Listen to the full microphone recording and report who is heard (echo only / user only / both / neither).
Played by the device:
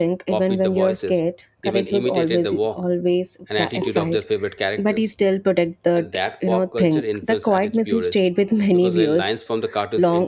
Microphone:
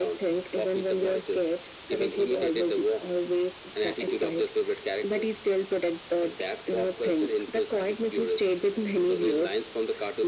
echo only